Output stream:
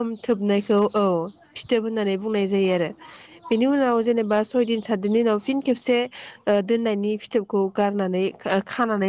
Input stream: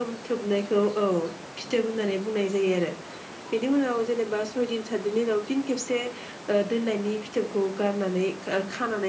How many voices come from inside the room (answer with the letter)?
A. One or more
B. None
B